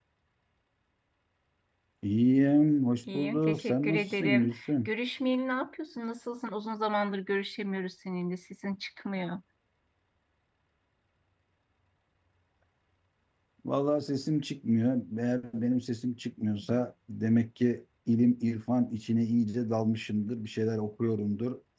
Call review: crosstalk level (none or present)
present